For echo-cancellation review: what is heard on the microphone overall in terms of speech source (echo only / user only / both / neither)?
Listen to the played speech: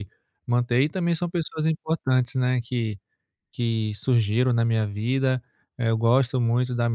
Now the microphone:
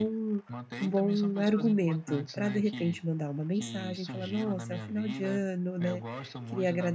both